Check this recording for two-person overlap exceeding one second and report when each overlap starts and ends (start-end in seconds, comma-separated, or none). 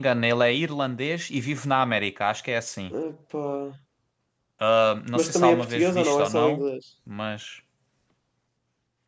5.2-6.6